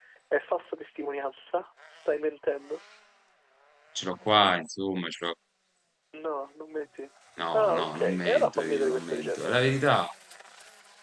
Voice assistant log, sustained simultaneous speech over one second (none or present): present